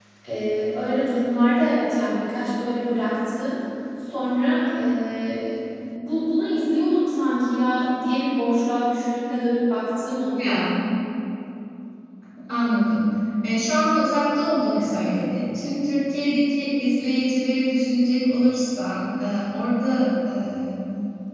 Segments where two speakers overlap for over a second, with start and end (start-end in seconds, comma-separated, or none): none